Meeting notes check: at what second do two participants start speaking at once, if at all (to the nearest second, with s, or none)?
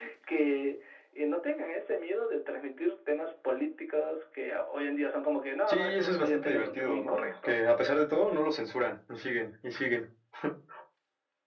6 s